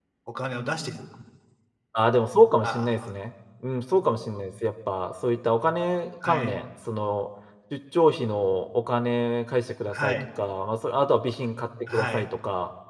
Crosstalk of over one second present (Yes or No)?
No